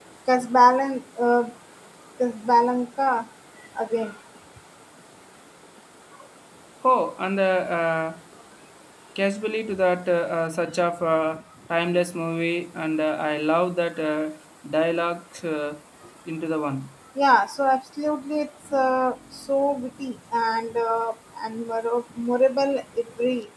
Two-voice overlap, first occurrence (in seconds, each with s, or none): none